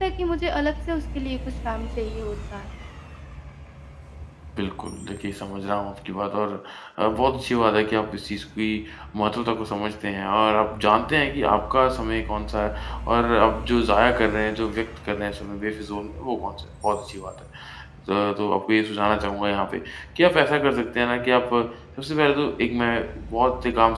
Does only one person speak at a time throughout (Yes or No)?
Yes